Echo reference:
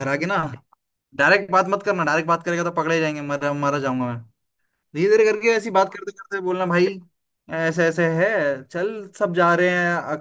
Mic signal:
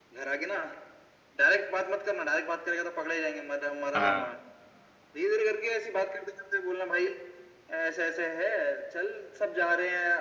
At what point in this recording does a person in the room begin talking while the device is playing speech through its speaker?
4.0 s

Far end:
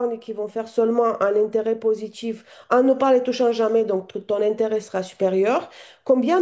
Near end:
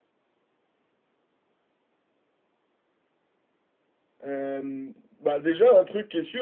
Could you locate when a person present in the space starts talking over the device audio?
4.2 s

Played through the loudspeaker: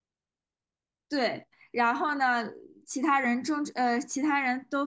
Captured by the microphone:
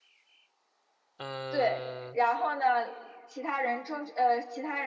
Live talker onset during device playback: 1.2 s

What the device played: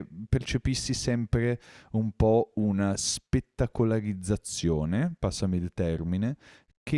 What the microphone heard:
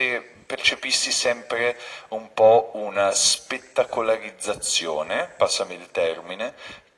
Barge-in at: none

